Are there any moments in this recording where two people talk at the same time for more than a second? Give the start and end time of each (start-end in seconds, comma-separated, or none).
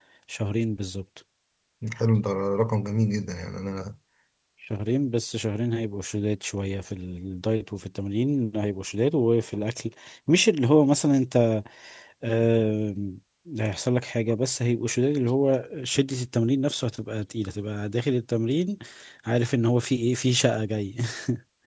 none